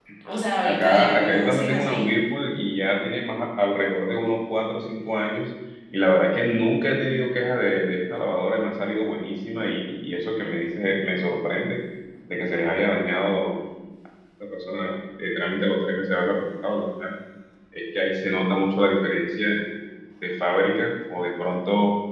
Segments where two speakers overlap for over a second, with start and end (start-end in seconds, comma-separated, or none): 0.6-2.0